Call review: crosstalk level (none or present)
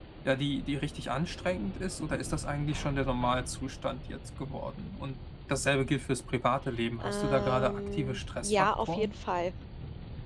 present